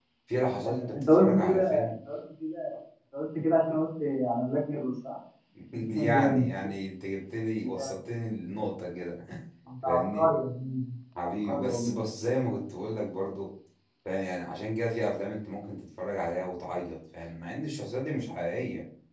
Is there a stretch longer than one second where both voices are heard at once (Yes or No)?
Yes